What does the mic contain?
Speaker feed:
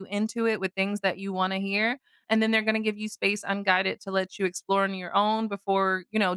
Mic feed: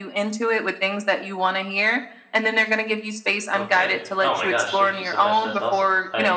both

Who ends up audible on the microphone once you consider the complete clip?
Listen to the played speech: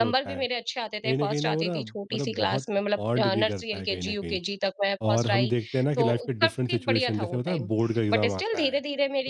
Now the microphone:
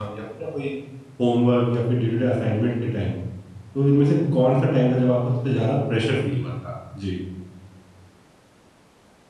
user only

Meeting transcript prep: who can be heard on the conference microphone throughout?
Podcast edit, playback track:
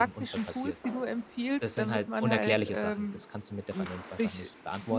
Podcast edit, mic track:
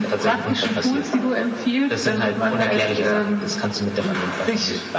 echo only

